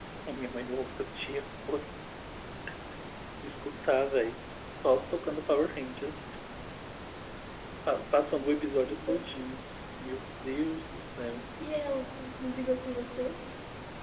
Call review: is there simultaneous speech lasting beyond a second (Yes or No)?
No